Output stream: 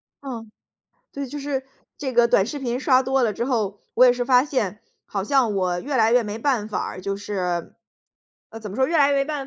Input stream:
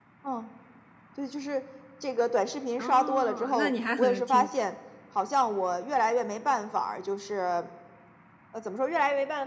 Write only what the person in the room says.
哦，那你还很挺

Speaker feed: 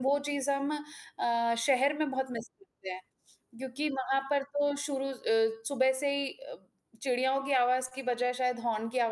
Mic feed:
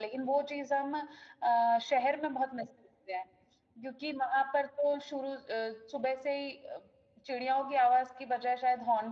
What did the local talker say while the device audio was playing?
none

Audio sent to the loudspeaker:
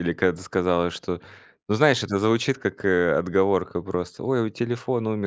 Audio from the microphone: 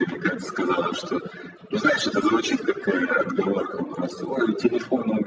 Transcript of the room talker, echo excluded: none

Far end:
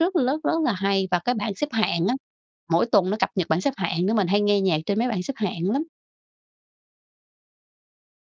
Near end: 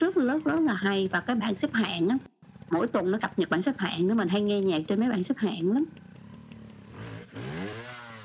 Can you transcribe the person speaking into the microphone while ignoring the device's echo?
none

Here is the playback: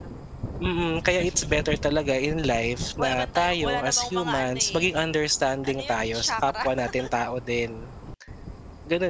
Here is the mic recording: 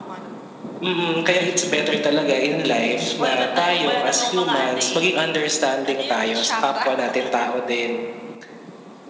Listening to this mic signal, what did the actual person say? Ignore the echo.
none

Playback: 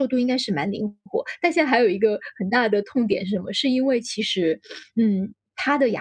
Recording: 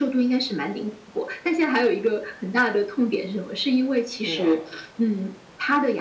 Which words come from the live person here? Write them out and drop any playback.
对啊。

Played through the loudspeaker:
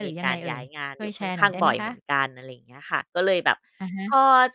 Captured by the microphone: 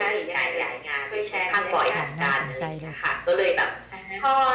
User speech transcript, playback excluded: ค่ะ น่าสนใจเลย

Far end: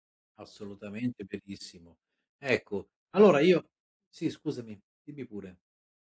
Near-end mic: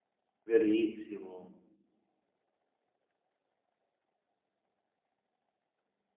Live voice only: Verissimo.

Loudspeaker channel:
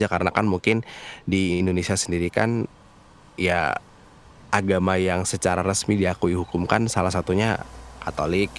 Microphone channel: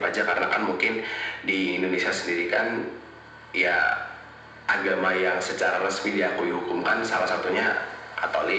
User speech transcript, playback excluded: none

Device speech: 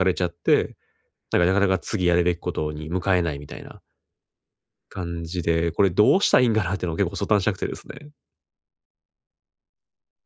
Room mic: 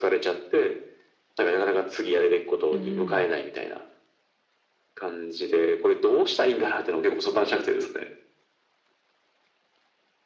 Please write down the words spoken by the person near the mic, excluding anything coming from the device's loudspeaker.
うーん。

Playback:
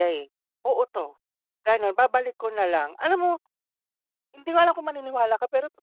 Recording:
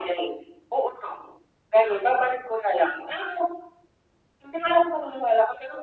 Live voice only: none

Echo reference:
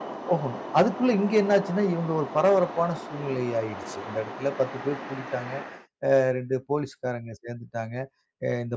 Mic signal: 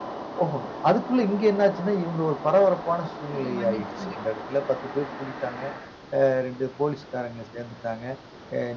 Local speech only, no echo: கொஞ்சம் மன்னிச்சு விடுங்க.

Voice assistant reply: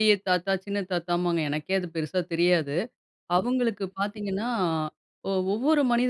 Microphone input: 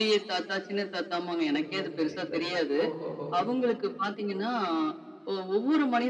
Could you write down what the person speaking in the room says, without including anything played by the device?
சரிங்க. சரி, சரி. ஓஹோஹோ.

